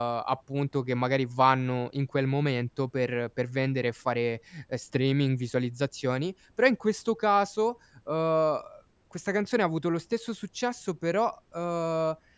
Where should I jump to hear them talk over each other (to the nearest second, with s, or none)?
none